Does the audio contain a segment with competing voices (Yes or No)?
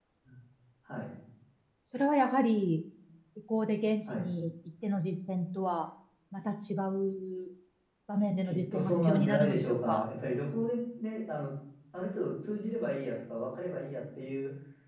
Yes